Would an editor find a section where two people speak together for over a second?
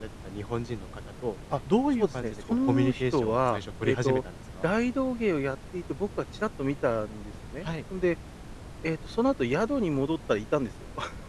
Yes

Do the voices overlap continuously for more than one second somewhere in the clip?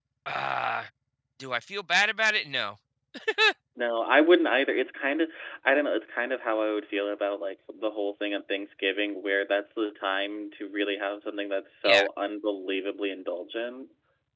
No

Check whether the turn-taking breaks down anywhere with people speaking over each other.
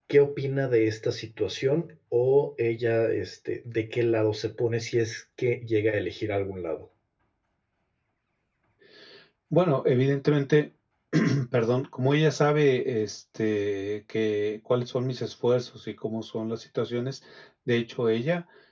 No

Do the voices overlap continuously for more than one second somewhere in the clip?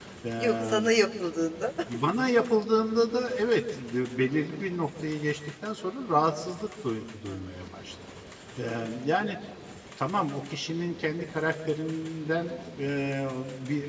No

